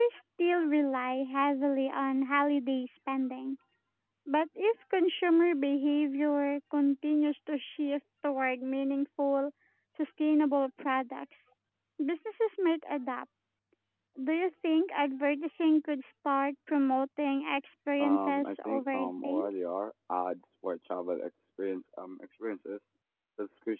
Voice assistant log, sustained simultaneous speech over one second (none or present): present